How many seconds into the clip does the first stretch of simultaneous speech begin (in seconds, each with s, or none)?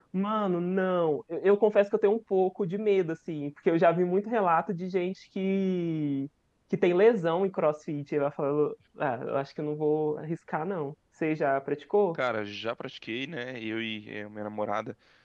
none